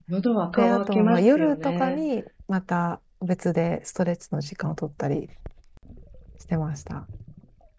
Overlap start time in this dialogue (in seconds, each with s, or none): 0.6 s